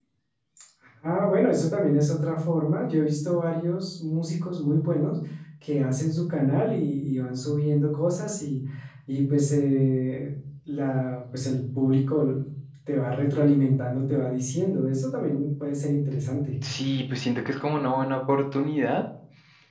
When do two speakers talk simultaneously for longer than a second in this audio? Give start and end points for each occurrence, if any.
none

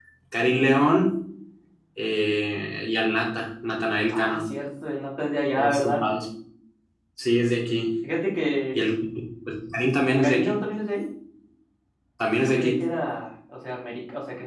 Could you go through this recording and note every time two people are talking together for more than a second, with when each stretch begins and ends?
none

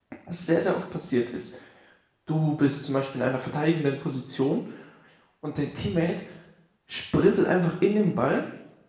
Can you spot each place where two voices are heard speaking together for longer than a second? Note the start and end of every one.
none

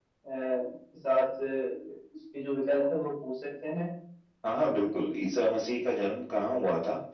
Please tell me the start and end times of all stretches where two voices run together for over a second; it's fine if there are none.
none

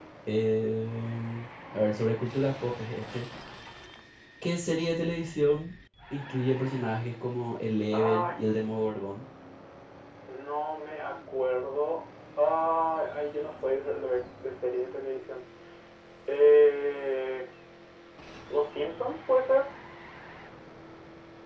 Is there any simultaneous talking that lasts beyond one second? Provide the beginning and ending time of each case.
none

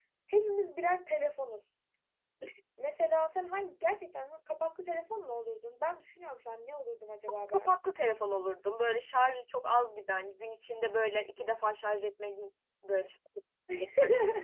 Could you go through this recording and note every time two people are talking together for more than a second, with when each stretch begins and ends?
none

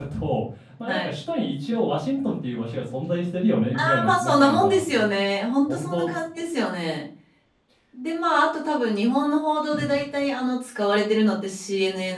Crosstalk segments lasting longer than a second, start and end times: 3.8-5.0

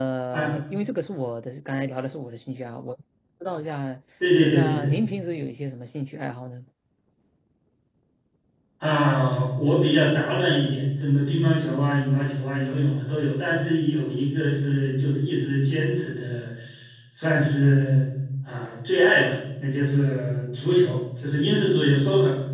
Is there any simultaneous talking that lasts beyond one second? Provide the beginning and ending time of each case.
none

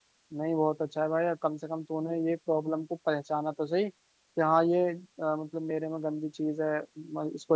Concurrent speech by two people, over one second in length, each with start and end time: none

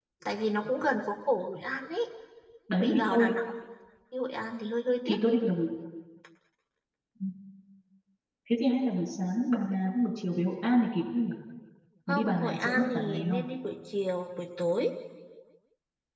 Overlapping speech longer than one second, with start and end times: 12.1-13.4

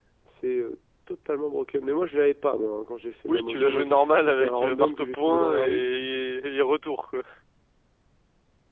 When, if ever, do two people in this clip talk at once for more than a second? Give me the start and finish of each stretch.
3.3-5.8

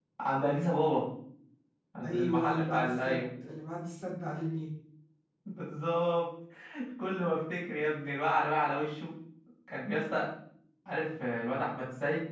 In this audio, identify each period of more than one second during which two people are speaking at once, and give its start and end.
2.0-3.2

